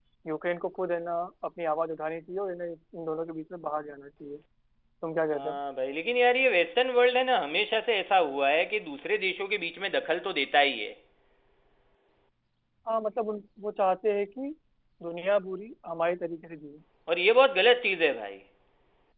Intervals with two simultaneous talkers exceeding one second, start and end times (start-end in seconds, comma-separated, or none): none